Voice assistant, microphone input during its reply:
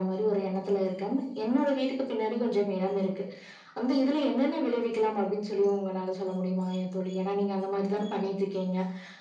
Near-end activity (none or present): none